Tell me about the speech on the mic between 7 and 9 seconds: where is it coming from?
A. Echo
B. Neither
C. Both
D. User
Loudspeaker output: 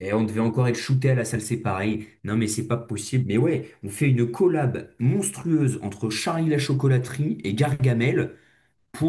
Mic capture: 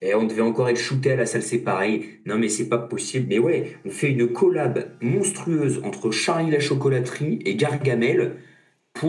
A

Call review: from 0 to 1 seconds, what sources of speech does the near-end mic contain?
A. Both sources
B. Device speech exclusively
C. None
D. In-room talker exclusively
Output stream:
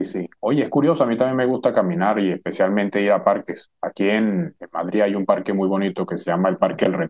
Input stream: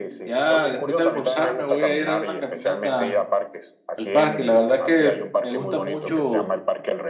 A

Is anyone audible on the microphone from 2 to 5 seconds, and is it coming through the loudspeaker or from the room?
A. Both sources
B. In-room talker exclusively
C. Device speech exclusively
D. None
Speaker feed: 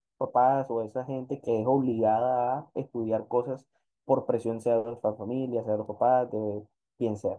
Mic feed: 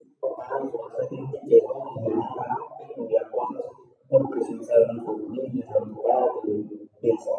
C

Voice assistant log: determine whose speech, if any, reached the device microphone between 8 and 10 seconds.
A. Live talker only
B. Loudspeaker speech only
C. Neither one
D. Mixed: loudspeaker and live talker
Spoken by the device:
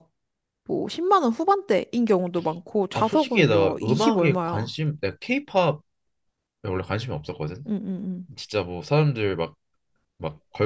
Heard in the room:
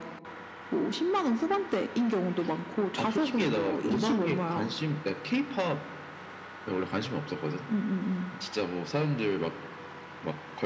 B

